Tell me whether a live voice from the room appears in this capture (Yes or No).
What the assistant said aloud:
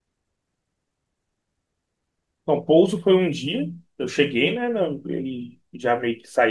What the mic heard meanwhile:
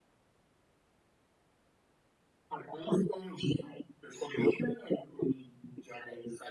No